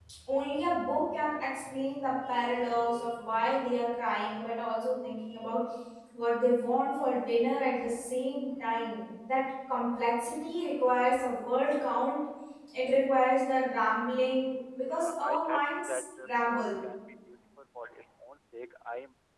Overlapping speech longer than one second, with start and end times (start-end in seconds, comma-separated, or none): 14.9-16.7